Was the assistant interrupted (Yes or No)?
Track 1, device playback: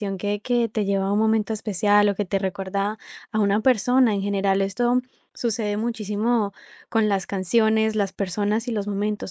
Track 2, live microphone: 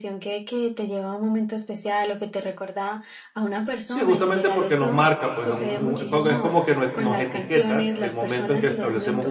Yes